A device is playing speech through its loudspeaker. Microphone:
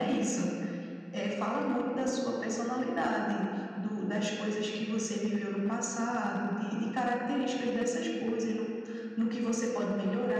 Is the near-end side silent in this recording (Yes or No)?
Yes